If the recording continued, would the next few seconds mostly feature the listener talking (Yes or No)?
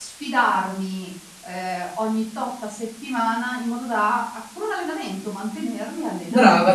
Yes